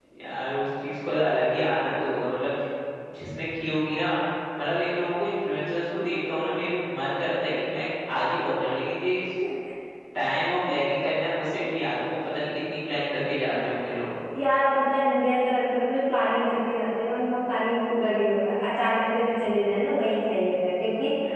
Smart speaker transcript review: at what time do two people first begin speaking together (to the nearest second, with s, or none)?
none